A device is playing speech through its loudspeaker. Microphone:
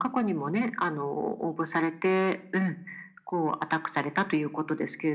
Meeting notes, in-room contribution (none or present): none